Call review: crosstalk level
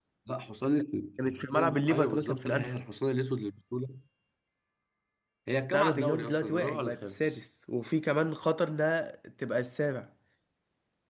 present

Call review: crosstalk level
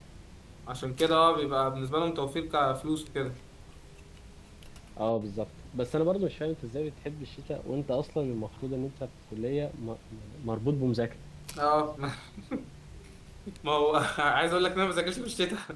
none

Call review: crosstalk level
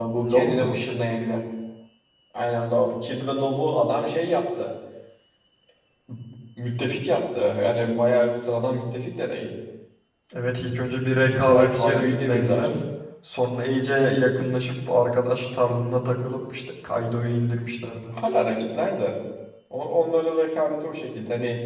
present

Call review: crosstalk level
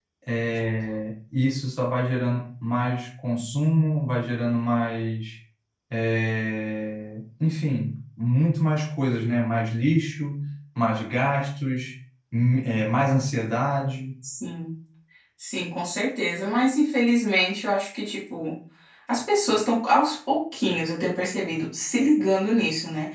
none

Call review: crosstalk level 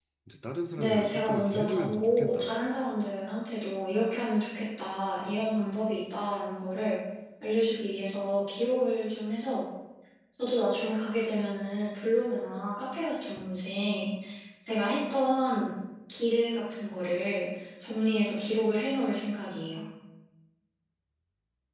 present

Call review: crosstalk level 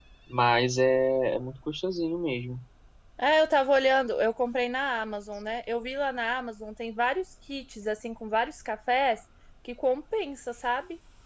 none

